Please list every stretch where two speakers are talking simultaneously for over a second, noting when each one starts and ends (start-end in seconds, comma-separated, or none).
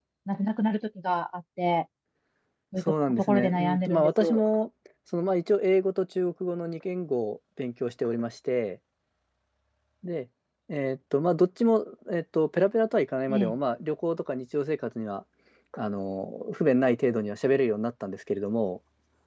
2.8-4.4